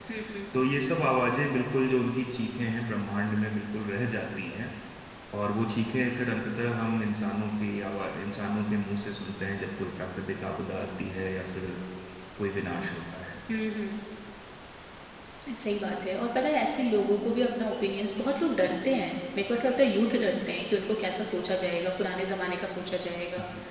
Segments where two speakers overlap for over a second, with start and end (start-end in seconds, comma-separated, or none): none